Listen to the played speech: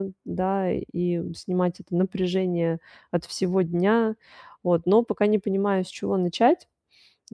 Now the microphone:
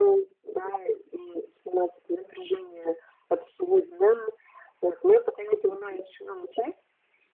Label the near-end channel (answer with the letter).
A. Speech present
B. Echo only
B